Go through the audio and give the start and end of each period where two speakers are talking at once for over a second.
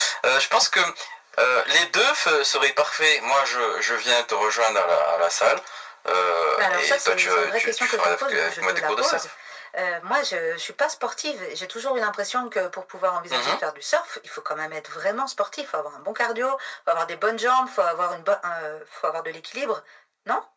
6.6-9.2

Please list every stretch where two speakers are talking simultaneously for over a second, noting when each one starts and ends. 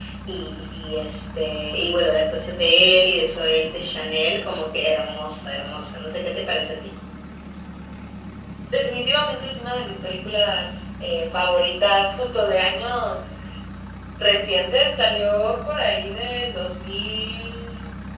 none

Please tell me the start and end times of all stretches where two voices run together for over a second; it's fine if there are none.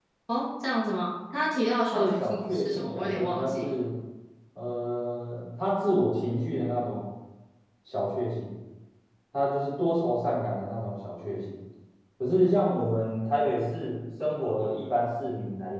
1.9-3.7

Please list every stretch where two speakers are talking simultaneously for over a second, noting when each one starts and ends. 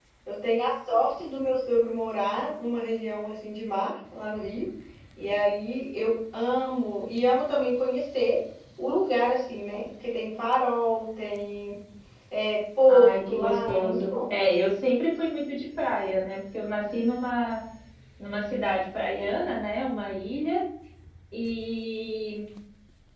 12.9-14.3

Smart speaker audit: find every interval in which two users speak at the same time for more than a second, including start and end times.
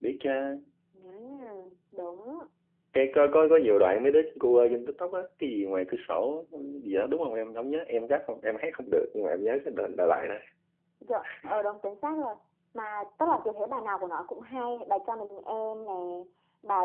none

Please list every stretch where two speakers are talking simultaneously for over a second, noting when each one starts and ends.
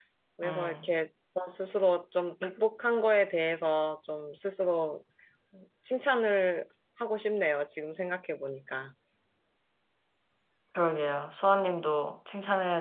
none

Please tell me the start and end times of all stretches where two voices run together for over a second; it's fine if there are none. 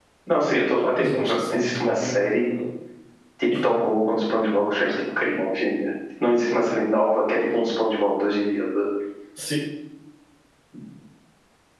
0.9-2.4

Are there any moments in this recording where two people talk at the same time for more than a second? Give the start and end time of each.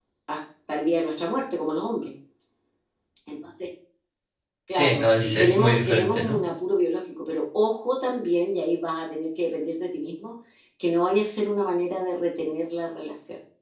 4.7-6.4

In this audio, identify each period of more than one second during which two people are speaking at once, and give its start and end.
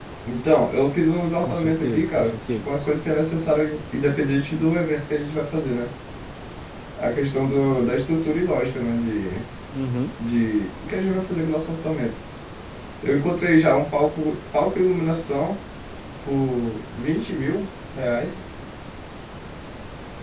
1.4-2.7

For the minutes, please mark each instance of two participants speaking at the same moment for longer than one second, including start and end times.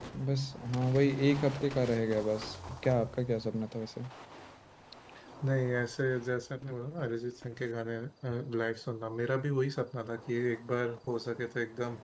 none

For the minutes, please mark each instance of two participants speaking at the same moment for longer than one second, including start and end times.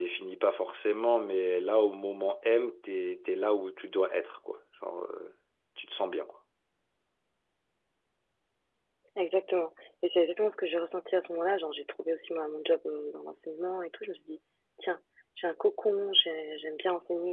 none

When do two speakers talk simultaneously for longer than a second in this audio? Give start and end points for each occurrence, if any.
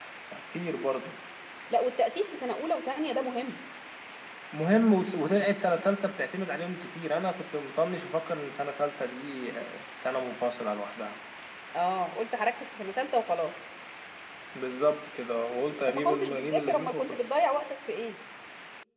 15.9-17.2

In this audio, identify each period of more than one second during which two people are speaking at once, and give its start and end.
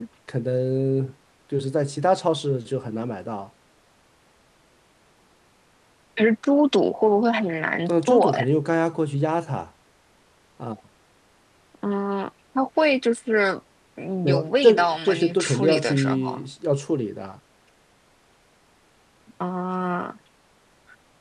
14.2-16.4

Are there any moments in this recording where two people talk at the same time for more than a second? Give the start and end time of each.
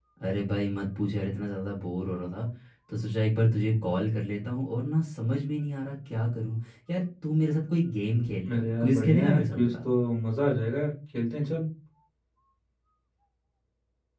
8.5-9.8

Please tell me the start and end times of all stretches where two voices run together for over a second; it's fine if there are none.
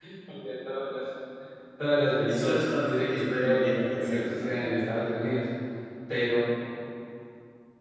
2.3-4.6

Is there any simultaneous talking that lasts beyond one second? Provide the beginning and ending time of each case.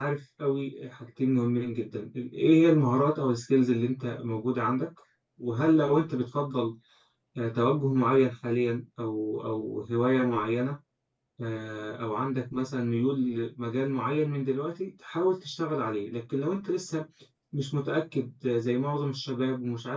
none

